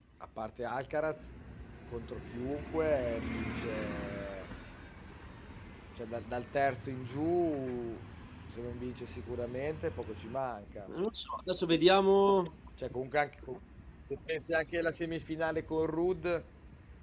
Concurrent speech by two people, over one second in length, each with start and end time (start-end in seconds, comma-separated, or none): none